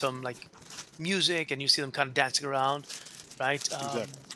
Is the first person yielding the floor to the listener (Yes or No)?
No